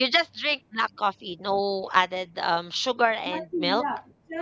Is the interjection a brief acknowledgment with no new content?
No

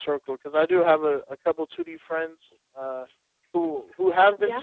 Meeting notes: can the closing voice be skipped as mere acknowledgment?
Yes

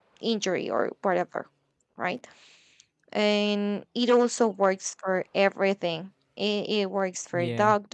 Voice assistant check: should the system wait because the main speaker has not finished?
Yes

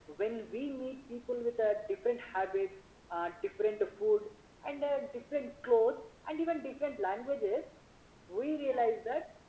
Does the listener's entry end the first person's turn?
No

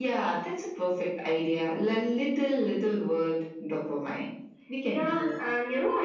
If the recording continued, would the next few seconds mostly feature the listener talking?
Yes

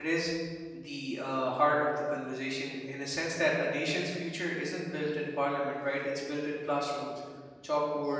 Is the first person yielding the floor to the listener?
No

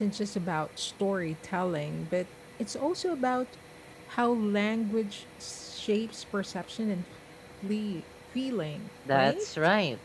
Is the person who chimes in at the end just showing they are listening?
No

